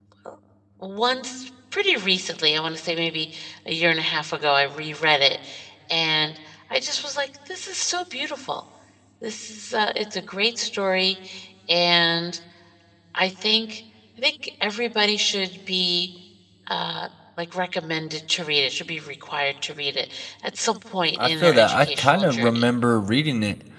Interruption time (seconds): 21.2 s

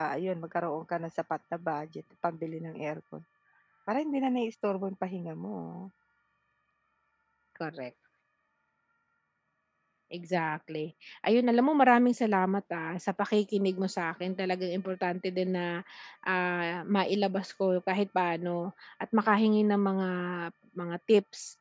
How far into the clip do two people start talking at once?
none

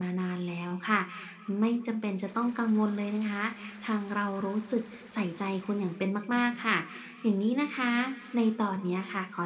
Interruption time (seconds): none

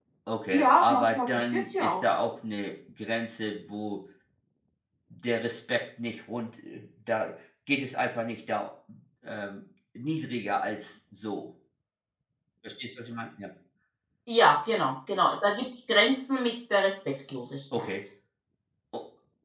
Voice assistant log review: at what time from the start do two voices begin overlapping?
0.5 s

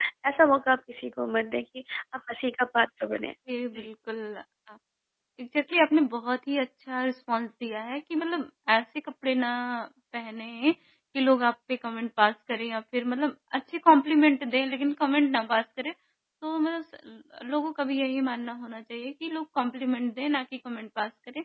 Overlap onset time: none

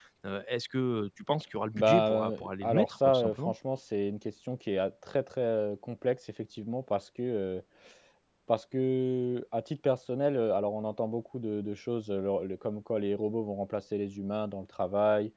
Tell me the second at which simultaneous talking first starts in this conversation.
1.7 s

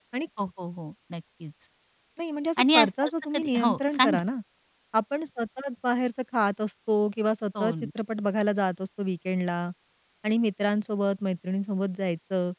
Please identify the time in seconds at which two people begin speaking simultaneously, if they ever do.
2.6 s

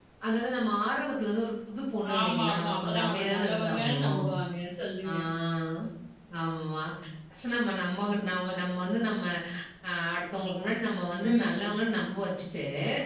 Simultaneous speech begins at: 2.2 s

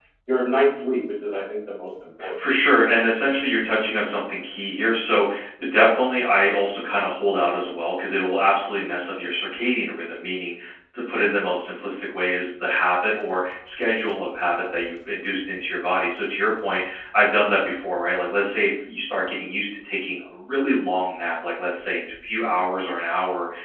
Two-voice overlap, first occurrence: none

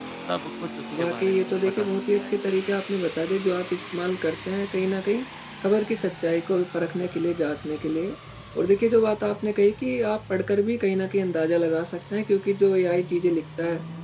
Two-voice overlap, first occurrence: 1.0 s

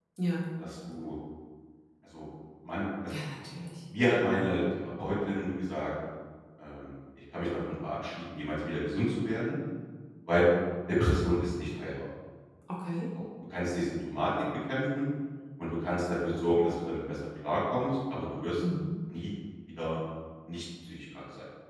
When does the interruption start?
none

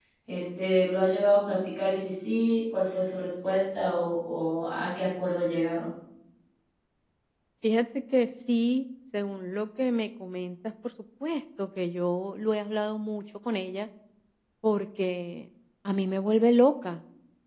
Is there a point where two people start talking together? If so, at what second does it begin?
none

